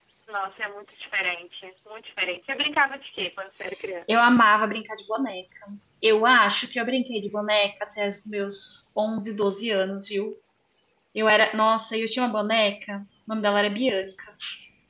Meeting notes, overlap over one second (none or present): none